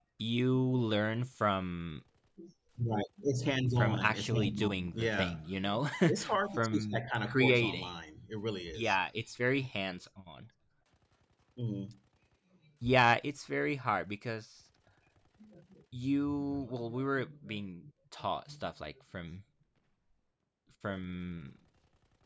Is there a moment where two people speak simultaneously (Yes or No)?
Yes